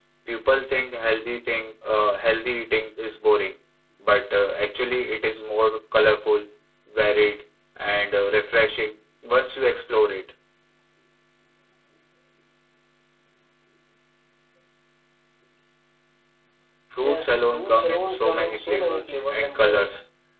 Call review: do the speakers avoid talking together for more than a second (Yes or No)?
No